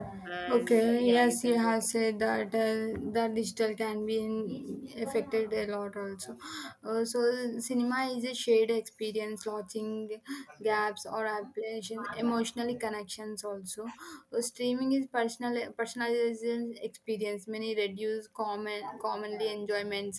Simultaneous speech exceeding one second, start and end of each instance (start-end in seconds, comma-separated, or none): 0.5-1.7